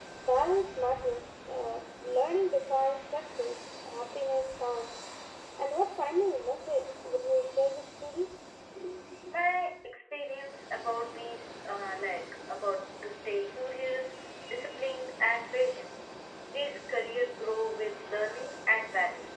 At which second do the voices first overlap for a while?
none

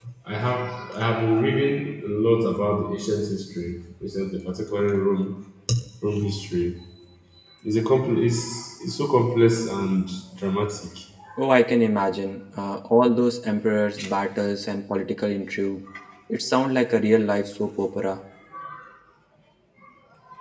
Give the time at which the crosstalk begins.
none

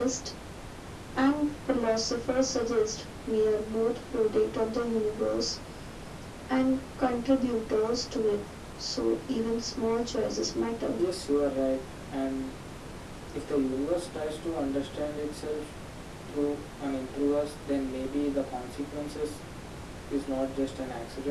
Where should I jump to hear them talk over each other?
none

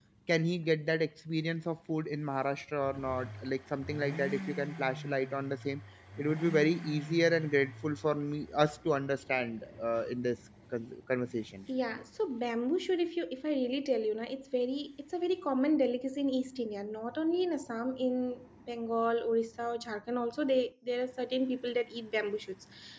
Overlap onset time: none

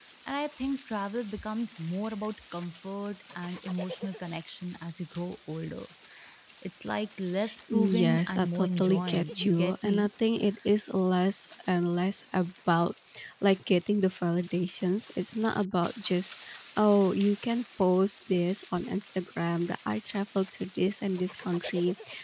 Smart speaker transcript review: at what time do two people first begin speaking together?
7.7 s

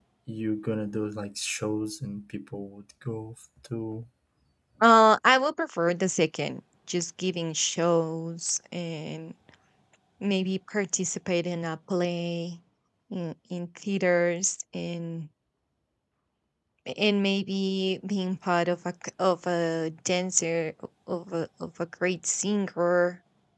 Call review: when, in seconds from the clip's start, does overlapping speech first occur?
none

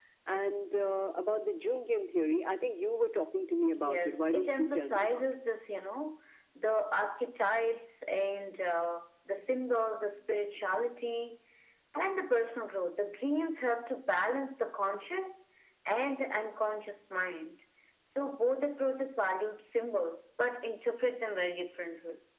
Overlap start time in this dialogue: 3.7 s

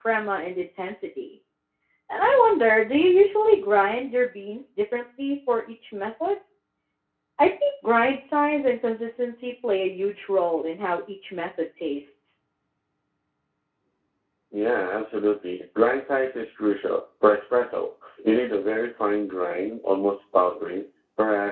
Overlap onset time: none

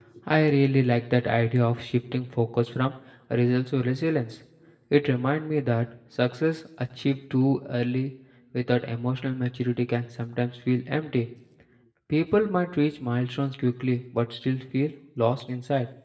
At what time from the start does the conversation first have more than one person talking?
none

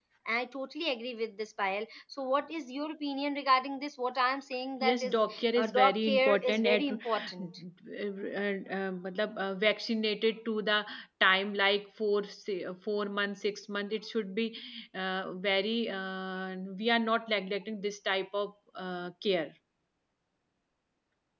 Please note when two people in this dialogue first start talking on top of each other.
4.8 s

